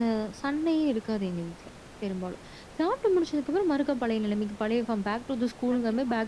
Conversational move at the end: taking over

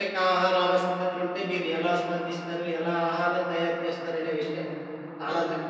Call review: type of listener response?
listening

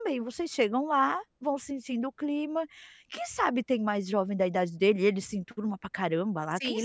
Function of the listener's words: taking over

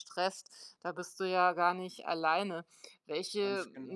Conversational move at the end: listening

